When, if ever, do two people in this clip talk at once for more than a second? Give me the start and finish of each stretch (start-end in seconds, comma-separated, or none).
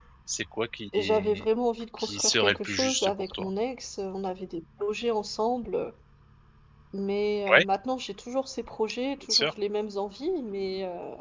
2.0-3.5